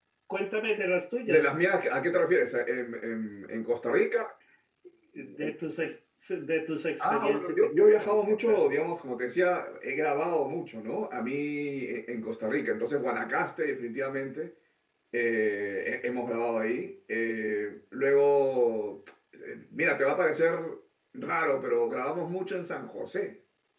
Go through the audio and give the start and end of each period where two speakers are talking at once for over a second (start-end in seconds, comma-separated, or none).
7.0-8.7